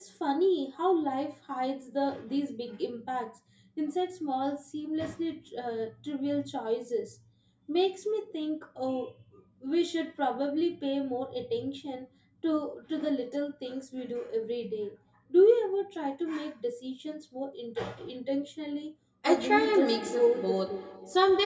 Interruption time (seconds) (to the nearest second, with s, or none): 19 s